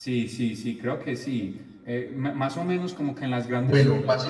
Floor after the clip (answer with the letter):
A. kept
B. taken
A